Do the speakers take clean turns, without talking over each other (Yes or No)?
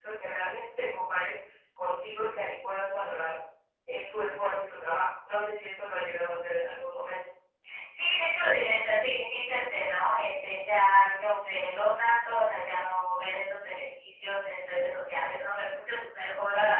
Yes